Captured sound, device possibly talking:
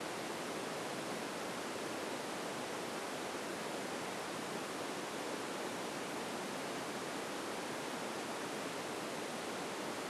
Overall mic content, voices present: neither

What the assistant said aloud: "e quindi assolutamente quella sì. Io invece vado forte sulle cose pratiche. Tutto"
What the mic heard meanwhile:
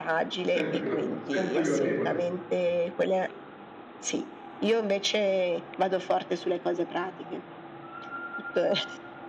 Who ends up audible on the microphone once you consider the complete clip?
both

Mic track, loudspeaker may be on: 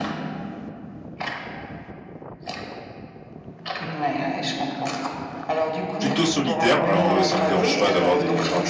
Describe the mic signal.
both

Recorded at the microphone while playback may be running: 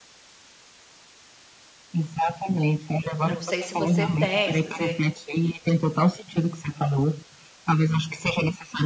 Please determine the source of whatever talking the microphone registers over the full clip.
both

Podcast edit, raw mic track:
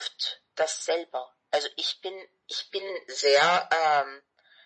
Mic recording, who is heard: echo only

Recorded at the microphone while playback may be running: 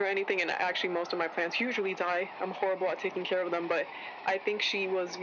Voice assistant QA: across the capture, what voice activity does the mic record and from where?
echo only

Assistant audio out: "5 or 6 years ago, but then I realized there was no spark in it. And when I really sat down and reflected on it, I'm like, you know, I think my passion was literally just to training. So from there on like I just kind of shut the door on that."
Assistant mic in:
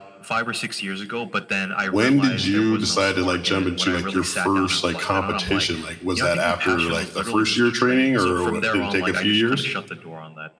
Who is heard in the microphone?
both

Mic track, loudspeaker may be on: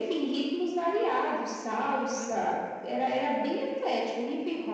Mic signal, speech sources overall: both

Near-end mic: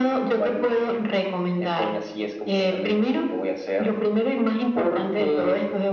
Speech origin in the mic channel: echo only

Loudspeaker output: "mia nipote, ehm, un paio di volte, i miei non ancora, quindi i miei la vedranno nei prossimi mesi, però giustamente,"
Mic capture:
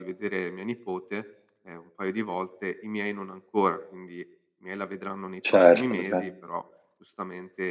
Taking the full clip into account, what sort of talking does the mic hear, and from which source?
both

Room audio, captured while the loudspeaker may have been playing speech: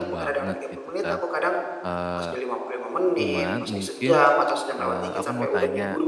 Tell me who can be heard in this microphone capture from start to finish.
both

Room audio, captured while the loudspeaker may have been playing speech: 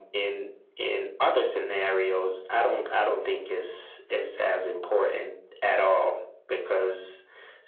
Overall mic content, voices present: echo only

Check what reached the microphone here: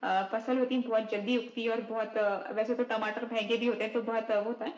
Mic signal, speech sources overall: echo only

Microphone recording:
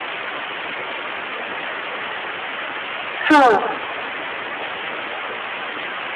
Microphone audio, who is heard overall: user only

